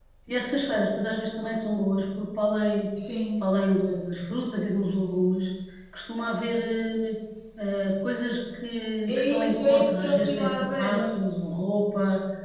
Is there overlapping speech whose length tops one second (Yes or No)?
Yes